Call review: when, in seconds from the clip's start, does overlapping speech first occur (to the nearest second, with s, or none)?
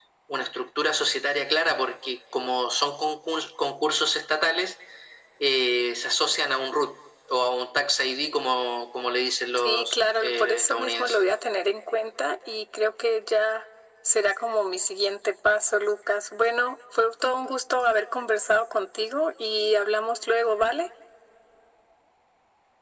10 s